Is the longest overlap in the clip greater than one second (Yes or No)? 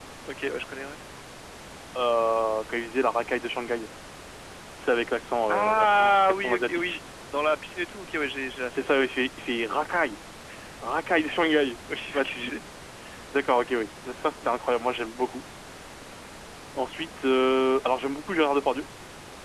Yes